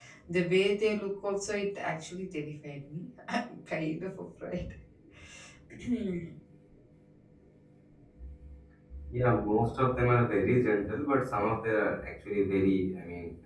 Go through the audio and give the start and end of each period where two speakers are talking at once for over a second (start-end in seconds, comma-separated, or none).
none